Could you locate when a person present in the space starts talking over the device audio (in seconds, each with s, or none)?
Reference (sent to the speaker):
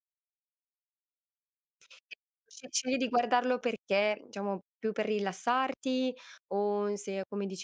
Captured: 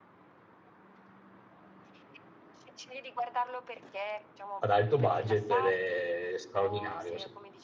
4.6 s